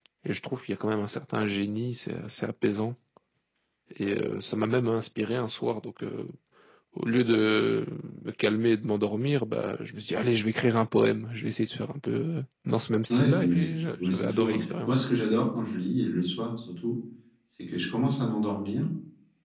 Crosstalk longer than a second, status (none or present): present